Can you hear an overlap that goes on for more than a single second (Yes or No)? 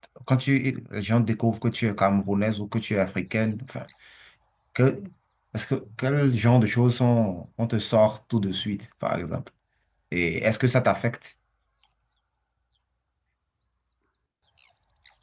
No